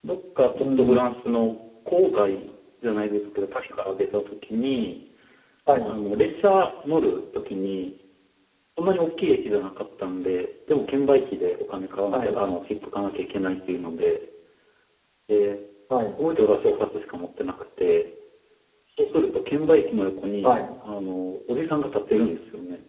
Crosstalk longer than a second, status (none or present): none